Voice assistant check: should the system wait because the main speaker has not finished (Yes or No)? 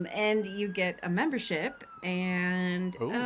Yes